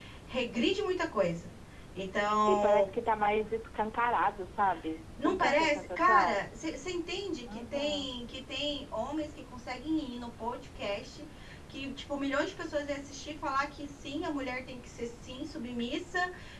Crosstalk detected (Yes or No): Yes